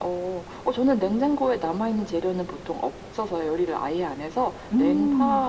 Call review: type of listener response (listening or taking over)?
listening